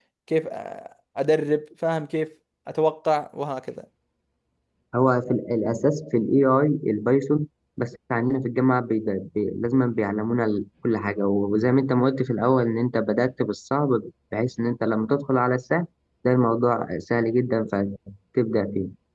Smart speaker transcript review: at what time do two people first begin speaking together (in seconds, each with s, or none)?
none